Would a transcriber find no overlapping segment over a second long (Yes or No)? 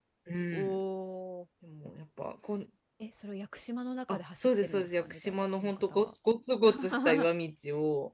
No